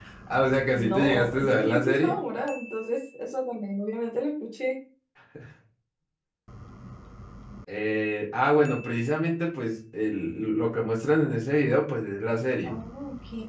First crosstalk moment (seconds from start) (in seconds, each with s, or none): 0.7 s